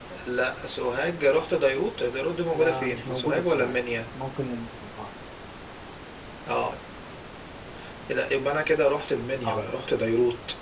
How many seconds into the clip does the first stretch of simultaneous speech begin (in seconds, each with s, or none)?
2.5 s